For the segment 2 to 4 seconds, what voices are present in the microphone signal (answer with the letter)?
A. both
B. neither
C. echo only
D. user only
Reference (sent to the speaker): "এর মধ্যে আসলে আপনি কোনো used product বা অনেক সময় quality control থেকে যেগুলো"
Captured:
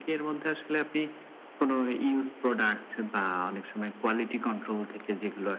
C